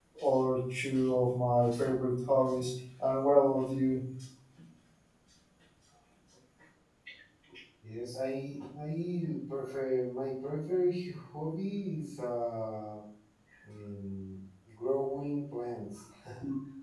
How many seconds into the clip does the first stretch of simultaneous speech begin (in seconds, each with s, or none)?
none